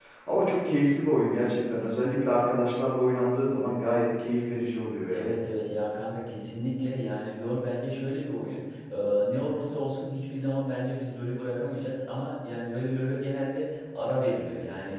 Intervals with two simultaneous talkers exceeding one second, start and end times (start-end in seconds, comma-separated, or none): none